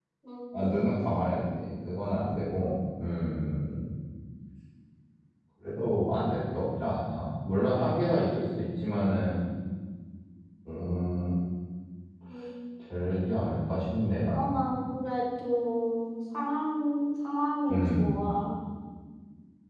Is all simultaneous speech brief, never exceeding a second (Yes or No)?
Yes